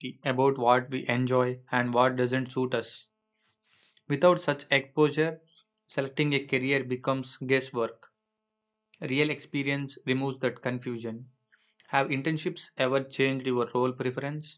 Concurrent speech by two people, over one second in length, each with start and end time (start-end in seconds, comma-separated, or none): none